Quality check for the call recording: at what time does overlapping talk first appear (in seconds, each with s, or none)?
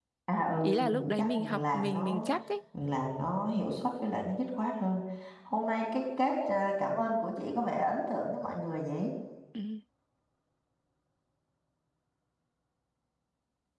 0.6 s